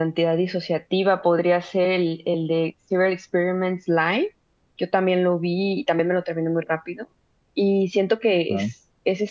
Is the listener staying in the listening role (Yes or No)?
Yes